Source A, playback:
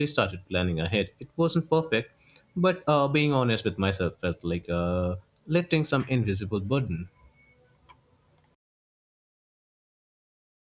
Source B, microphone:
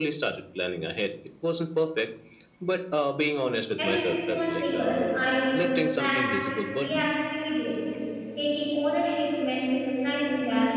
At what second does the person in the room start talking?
3.8 s

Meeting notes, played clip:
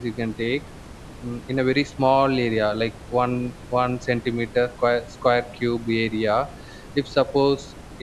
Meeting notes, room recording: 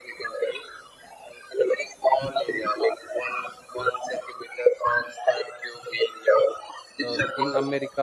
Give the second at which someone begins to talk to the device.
7.1 s

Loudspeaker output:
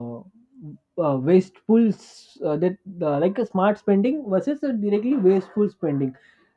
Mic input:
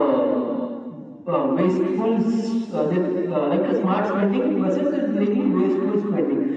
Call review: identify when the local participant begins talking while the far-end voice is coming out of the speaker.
none

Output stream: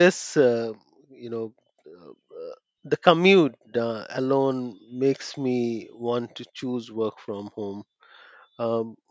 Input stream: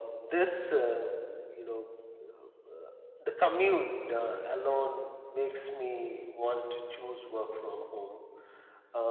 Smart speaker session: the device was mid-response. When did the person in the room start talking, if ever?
none

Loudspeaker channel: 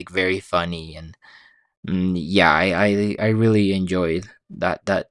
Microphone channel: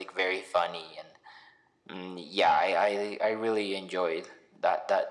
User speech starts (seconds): none

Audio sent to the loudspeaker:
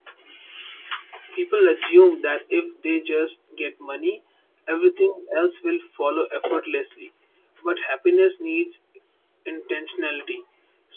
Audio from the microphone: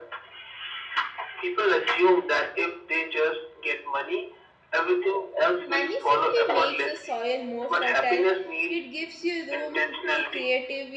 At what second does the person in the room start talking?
5.7 s

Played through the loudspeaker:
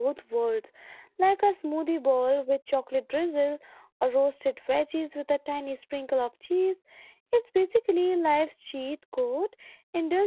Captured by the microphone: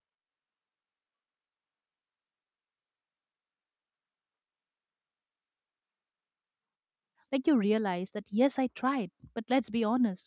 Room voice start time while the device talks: 7.3 s

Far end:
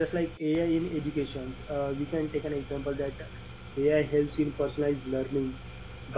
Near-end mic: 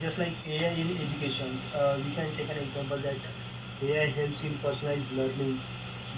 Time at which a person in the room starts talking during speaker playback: none

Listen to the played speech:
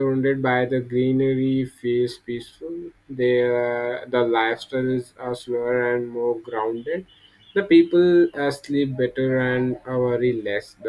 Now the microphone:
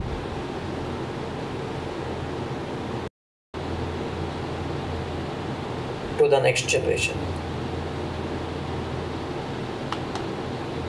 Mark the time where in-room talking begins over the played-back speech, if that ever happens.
6.2 s

